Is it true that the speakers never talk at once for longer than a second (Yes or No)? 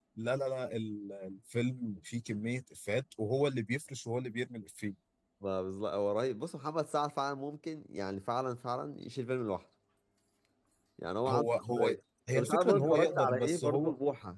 No